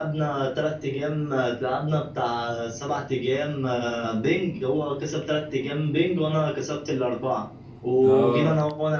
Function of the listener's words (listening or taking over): listening